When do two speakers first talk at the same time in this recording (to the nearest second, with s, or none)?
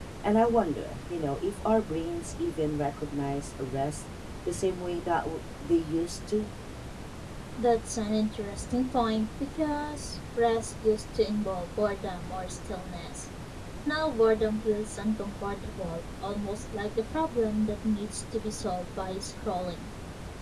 none